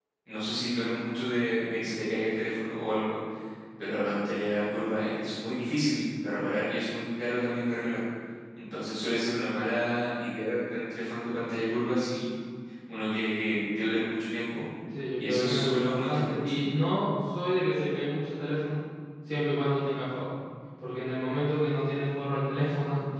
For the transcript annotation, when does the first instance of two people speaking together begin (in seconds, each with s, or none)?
15.2 s